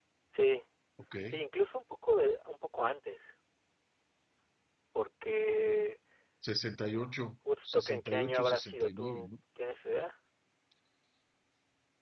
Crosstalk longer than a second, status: present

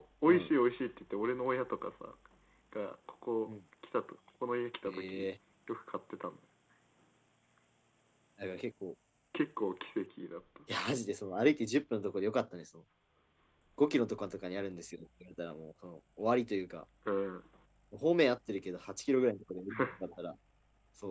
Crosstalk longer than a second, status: none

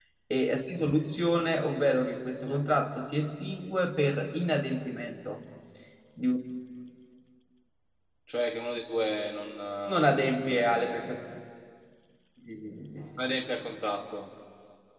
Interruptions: present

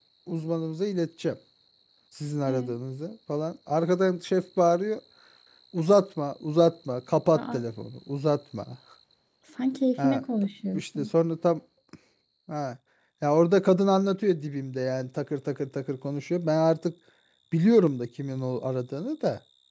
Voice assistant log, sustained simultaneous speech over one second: none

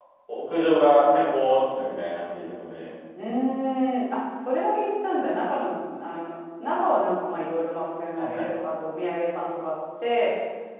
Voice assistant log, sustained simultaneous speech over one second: none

